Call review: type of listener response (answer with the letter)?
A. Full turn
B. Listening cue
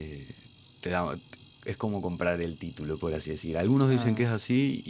B